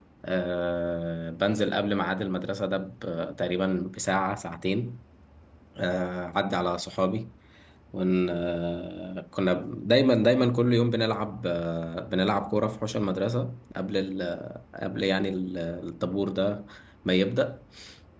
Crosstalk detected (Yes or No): No